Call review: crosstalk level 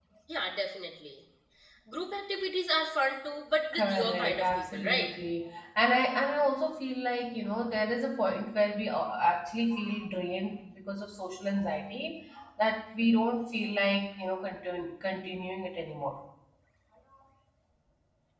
present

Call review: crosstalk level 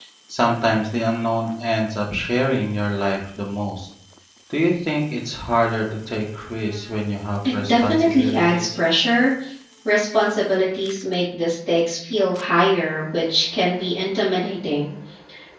present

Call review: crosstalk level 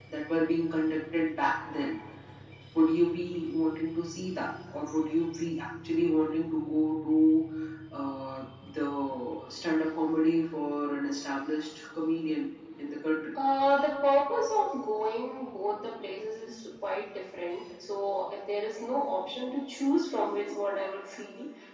none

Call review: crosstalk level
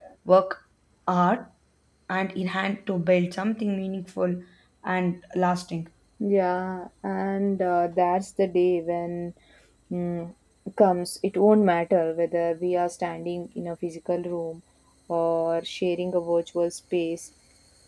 none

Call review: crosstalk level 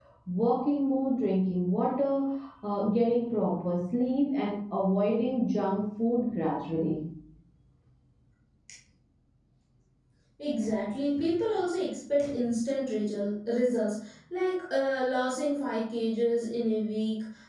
none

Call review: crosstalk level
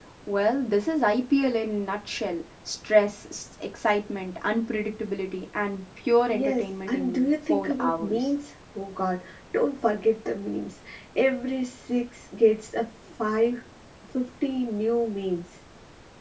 present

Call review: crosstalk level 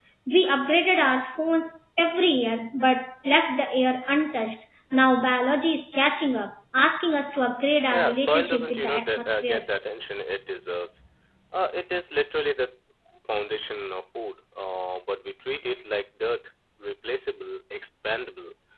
present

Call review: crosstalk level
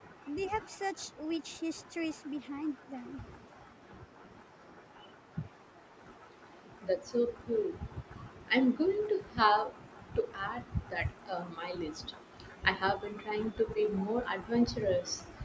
none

